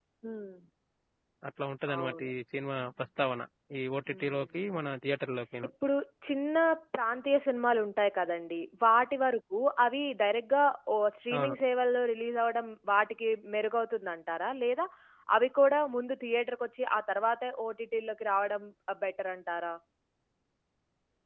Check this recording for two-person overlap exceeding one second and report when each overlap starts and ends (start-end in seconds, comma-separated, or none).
none